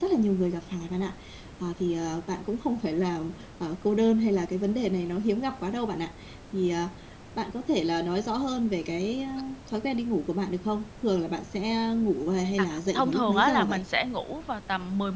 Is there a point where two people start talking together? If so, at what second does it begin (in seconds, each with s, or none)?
12.6 s